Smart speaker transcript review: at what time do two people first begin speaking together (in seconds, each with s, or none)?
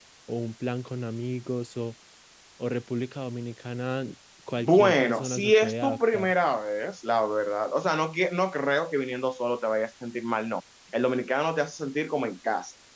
4.6 s